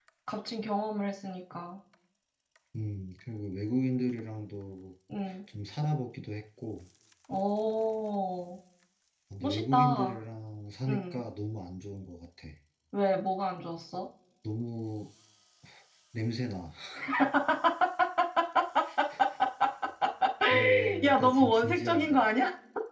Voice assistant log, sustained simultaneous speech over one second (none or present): present